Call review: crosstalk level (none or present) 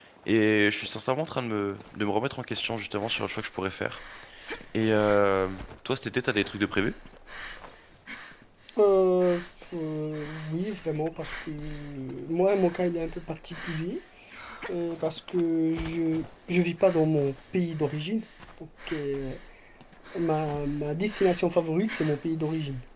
none